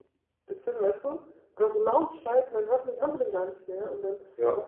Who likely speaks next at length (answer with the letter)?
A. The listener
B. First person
B